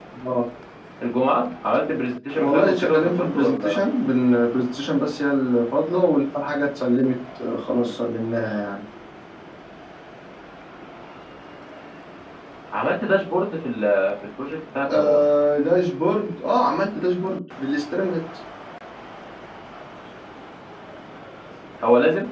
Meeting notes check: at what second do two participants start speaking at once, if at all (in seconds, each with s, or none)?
2.3 s